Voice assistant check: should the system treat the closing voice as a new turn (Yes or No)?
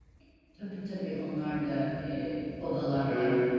Yes